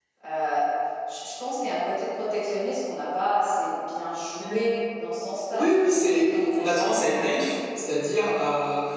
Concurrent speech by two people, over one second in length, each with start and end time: 5.5-6.8

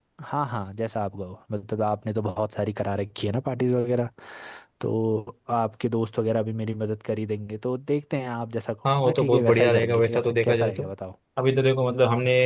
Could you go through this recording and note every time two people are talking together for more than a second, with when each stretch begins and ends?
9.0-10.8

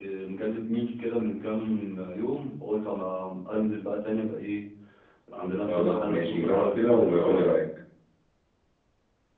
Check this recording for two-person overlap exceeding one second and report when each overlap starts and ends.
5.7-7.5

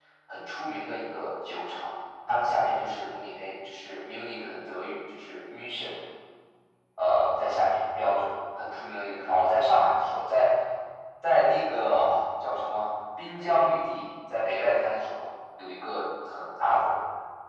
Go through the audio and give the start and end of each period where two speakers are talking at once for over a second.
none

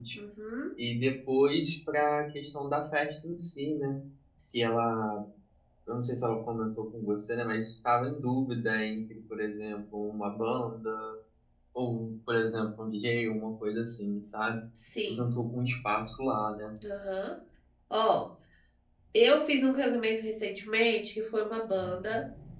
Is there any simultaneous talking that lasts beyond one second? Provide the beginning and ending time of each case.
none

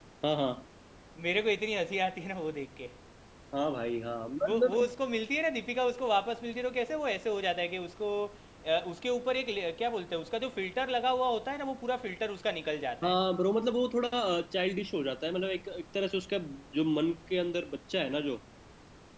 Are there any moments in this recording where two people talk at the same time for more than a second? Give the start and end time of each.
none

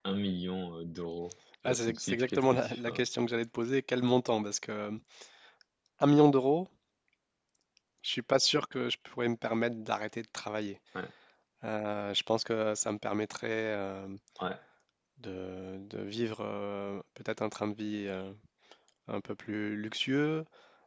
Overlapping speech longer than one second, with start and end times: 1.6-3.0

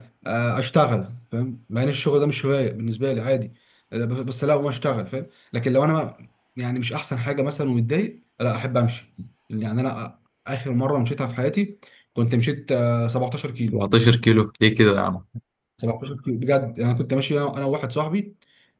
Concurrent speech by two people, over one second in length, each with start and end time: none

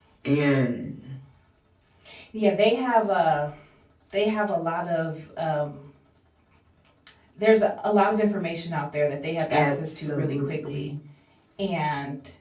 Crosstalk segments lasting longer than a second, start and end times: 9.5-10.9

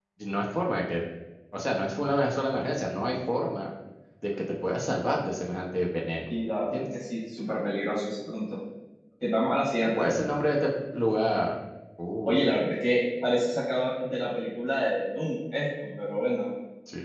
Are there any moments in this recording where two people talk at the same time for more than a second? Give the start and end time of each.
none

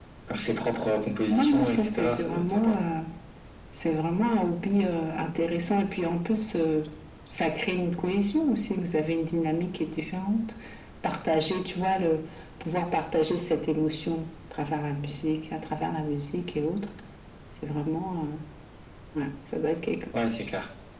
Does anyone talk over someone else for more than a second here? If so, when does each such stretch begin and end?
1.3-2.8

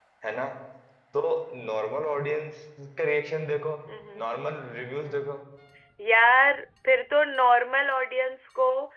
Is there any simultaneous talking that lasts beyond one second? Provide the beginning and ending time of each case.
none

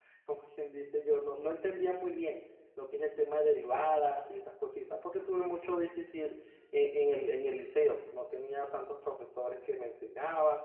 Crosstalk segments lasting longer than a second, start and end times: none

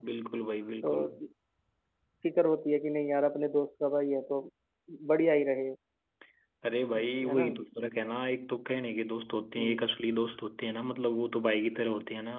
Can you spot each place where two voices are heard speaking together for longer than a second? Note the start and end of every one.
none

